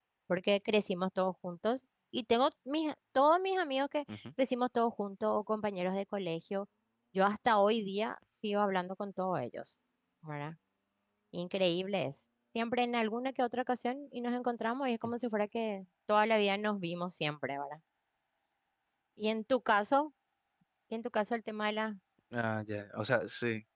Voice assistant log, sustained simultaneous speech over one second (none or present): none